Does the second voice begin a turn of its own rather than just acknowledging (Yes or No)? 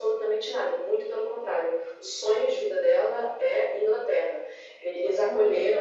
No